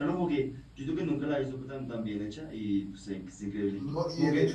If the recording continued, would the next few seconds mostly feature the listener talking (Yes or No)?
Yes